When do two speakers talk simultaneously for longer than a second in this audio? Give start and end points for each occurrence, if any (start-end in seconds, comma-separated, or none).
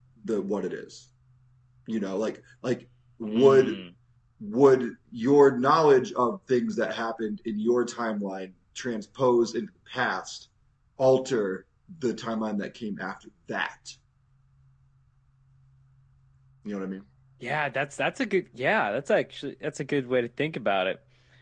none